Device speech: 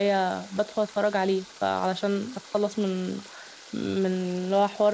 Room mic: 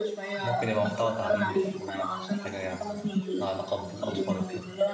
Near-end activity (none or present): present